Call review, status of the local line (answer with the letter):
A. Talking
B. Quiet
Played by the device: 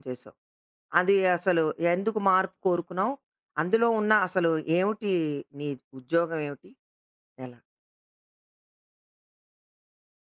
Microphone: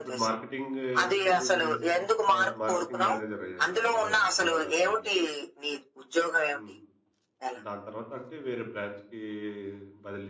A